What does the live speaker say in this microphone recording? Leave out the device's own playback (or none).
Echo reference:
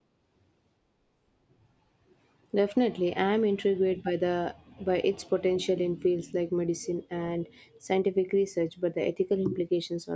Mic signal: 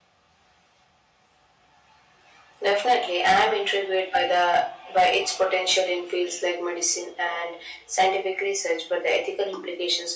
none